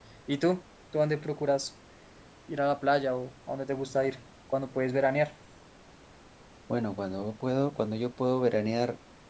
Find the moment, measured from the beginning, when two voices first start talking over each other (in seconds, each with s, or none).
none